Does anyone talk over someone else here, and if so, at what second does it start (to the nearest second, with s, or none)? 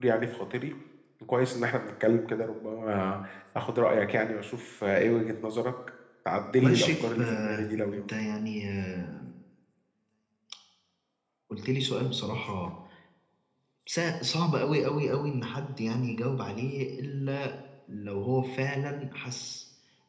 7 s